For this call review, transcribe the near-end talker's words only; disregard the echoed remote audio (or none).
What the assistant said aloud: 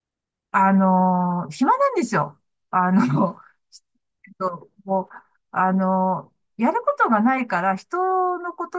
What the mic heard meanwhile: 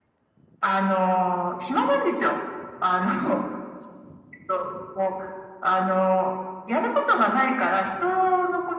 none